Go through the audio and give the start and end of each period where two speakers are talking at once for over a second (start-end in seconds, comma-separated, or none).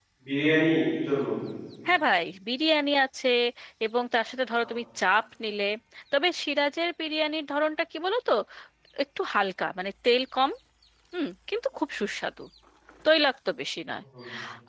none